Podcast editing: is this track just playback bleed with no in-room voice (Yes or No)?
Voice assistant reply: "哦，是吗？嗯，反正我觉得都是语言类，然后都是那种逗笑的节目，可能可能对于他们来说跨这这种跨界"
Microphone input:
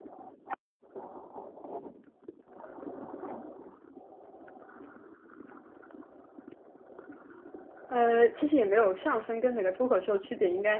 No